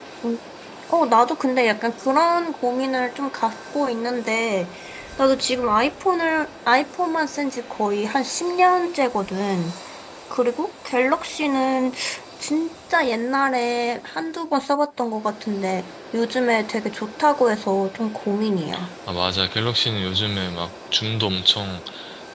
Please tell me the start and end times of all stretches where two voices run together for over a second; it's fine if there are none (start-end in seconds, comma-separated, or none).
none